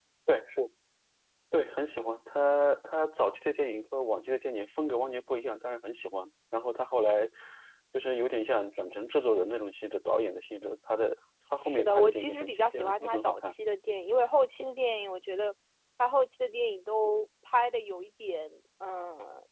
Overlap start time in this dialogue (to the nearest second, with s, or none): 12 s